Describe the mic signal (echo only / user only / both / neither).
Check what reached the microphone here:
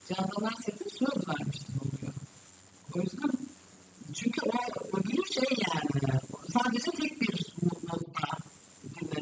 echo only